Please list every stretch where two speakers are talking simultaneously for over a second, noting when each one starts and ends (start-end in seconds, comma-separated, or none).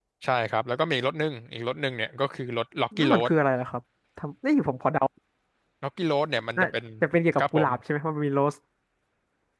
none